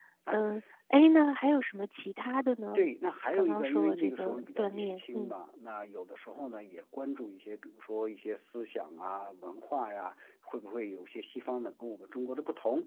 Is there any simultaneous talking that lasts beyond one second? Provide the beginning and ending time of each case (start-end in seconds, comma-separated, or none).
3.3-5.3